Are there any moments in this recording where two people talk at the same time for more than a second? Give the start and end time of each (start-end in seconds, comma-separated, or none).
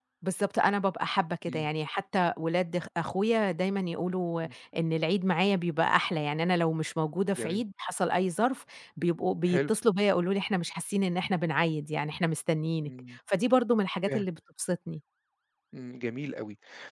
none